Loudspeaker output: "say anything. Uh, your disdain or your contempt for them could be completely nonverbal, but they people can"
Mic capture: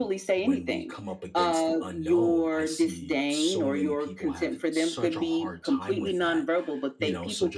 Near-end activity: present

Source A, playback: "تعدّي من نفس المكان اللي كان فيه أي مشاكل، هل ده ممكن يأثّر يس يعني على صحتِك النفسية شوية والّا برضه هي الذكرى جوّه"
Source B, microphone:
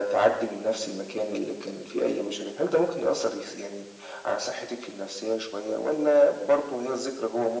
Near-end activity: none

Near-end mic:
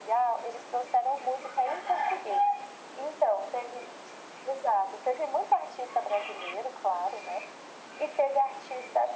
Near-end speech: none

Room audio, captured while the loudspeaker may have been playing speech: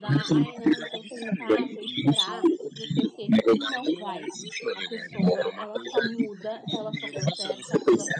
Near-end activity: present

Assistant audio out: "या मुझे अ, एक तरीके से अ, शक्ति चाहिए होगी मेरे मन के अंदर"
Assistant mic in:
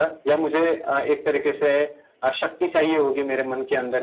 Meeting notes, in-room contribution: none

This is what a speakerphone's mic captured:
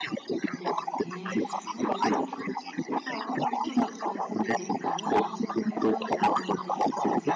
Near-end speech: present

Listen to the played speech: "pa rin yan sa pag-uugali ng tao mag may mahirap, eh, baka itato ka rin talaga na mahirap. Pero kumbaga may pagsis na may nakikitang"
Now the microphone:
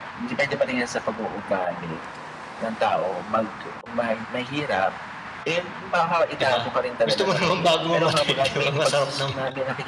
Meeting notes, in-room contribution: present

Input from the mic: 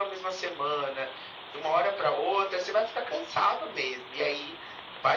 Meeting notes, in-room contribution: none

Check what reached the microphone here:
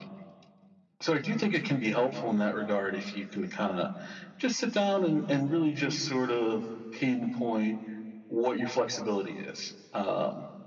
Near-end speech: none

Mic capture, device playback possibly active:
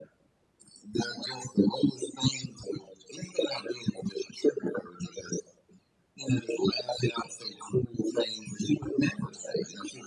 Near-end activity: none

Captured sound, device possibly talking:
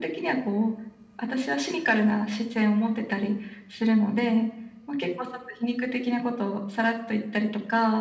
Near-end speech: none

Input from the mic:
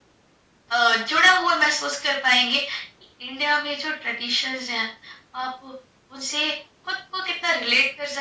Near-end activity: none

